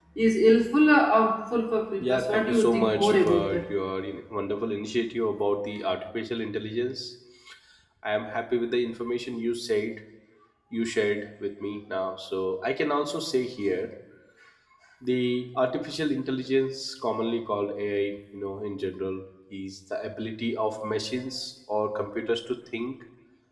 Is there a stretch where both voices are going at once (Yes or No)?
Yes